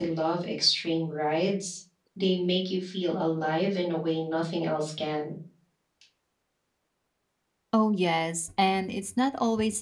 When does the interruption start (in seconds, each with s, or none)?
none